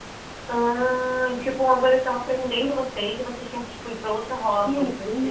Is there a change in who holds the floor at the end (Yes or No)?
Yes